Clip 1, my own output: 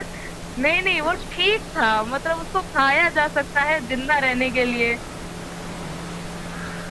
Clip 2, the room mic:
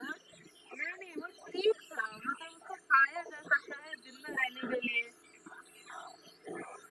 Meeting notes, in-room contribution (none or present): none